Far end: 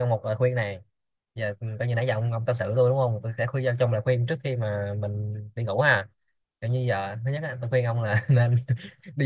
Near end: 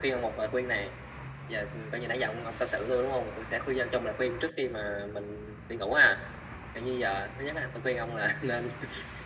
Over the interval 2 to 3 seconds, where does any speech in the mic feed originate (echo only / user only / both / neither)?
echo only